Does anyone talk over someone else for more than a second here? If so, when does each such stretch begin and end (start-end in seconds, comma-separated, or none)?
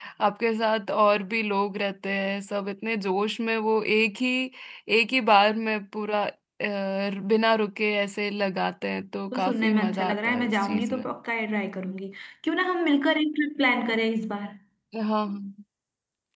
9.3-11.0